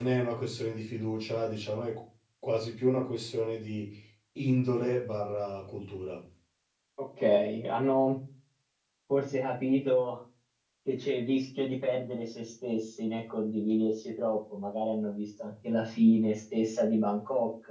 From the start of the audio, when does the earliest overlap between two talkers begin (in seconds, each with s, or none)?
none